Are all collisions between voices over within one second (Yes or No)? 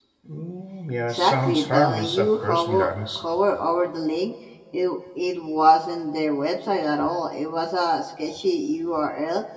No